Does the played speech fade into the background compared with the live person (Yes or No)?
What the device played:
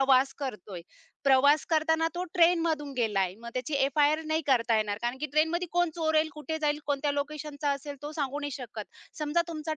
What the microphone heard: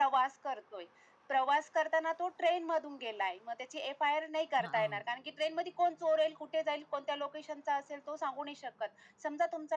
No